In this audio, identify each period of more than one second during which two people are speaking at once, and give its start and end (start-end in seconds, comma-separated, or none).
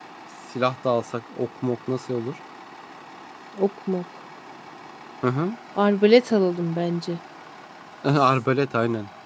none